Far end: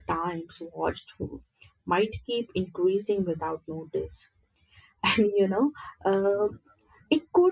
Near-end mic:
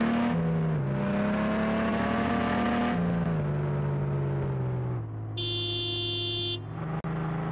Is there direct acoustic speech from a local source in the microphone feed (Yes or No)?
No